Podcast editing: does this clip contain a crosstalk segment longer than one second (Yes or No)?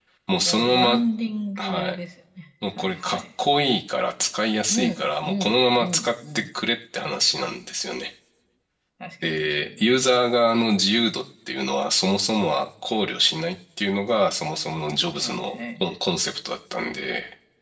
Yes